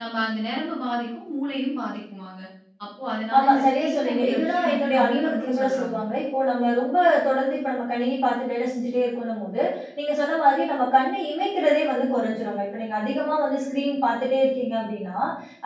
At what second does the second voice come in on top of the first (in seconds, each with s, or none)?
3.4 s